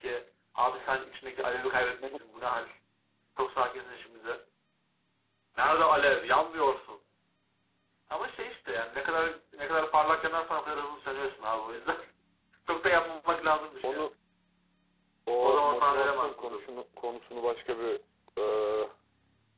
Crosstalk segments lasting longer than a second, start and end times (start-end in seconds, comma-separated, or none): 15.4-16.7